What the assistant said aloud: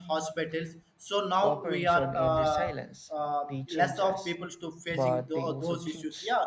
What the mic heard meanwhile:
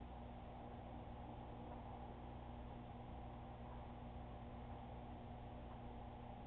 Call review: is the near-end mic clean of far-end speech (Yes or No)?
Yes